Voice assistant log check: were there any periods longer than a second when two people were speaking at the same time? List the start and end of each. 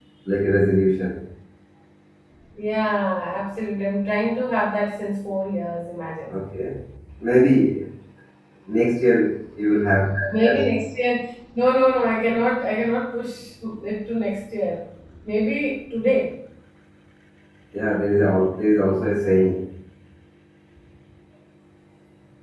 none

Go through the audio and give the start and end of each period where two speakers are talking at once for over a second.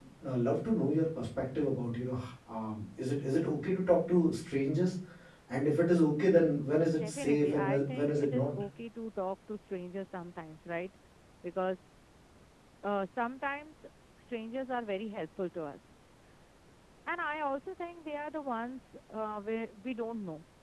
6.9-8.5

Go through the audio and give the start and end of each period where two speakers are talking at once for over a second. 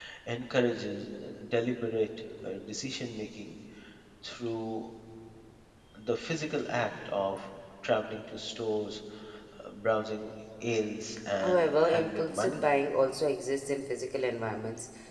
11.4-12.7

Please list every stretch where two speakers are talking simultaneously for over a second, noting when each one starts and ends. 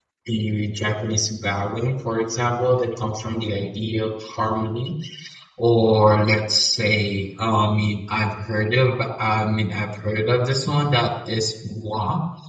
none

